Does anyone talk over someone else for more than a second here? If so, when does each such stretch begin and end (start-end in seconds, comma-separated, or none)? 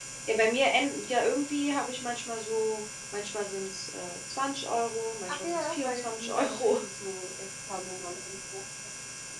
5.3-6.8